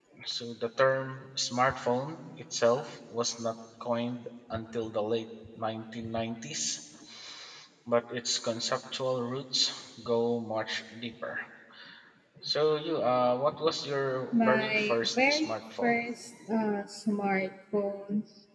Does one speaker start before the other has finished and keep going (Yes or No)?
Yes